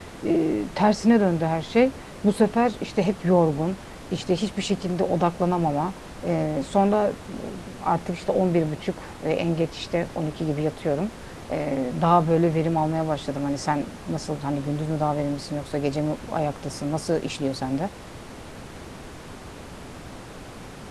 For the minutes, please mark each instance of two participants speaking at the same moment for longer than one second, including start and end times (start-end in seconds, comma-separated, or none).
none